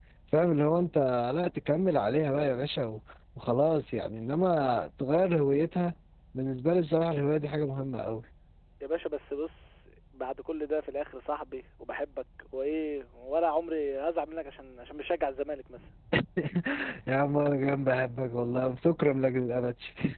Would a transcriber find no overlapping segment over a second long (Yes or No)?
Yes